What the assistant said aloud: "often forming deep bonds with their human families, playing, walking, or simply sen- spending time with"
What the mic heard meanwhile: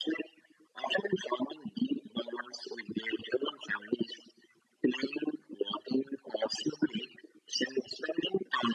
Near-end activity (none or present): none